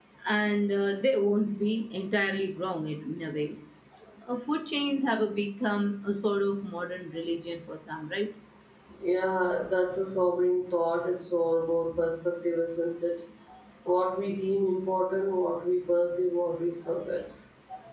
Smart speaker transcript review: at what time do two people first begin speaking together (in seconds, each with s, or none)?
none